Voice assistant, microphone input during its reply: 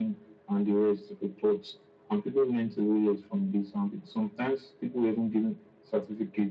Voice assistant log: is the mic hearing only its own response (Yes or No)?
Yes